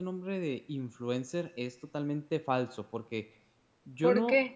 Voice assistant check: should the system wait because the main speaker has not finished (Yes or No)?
Yes